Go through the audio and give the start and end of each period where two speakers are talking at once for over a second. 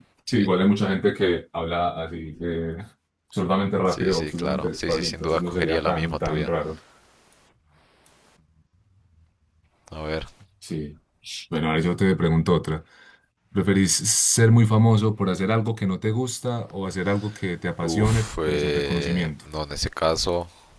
3.9-6.5, 17.8-19.3

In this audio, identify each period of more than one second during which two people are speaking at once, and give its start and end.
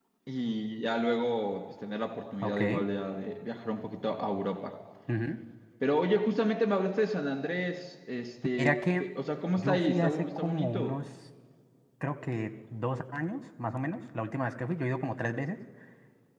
9.6-10.9

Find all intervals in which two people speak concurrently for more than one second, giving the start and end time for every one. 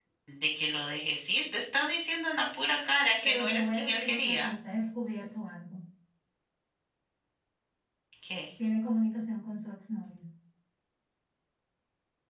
3.2-4.5

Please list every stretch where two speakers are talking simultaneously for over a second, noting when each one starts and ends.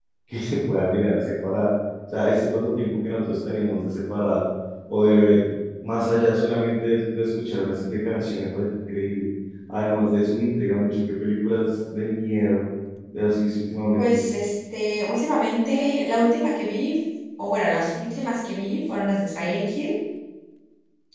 none

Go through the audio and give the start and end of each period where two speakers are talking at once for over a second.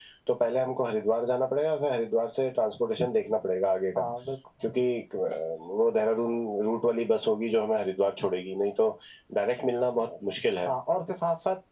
none

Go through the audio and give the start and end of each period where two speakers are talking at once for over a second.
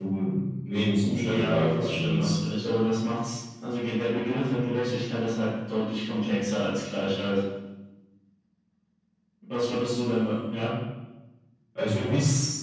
1.0-2.4

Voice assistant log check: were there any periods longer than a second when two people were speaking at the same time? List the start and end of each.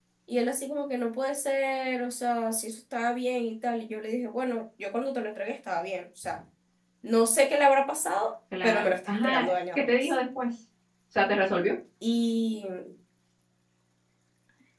8.6-10.1

